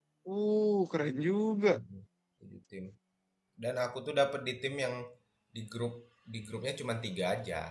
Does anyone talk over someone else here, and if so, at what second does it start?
none

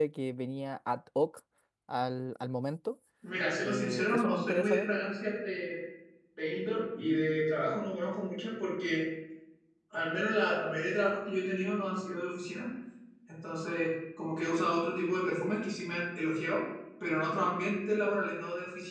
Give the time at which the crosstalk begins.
3.6 s

